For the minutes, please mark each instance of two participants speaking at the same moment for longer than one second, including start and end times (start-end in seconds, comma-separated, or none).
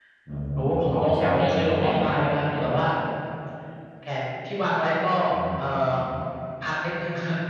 0.6-2.0